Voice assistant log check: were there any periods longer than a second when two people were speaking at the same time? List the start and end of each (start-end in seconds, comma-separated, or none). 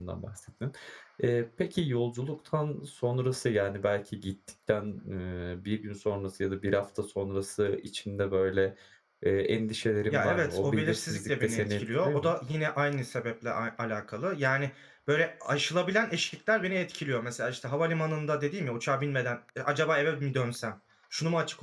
10.1-12.3